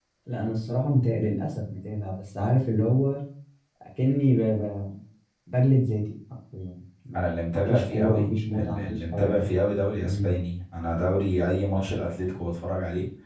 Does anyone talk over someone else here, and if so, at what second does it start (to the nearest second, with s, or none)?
7 s